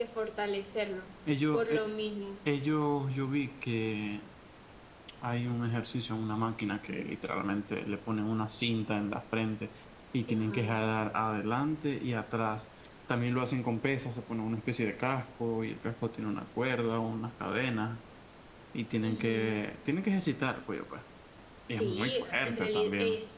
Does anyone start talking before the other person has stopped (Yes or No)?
Yes